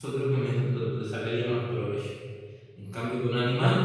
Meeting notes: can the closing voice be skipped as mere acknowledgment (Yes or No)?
Yes